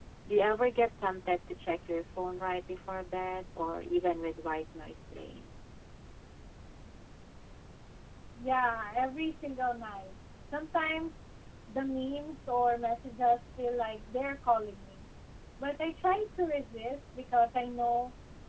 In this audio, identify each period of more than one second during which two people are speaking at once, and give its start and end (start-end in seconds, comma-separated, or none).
none